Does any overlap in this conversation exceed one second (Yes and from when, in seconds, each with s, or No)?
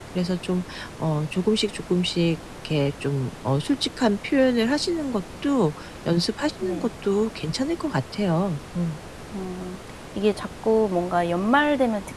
No